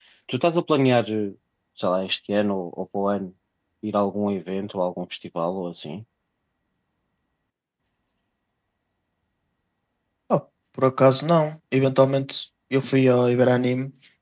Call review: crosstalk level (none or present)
none